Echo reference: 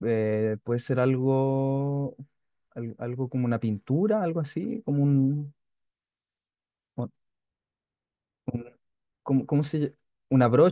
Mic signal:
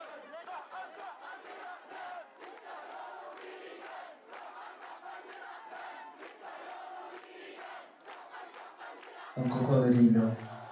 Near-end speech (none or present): present